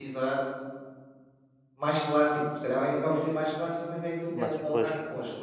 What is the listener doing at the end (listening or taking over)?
listening